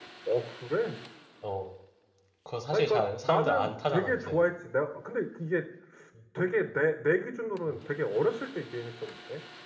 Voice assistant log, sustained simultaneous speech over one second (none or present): present